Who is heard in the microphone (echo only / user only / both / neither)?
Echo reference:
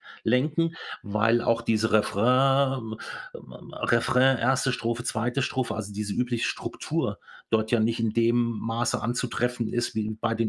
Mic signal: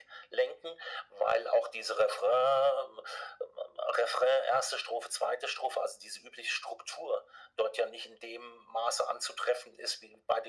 echo only